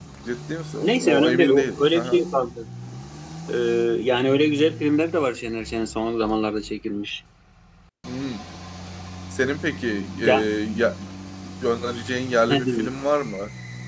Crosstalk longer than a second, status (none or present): present